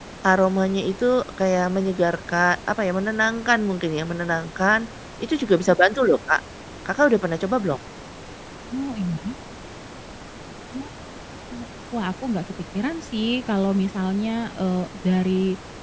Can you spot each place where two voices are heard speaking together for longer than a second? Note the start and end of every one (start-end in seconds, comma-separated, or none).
none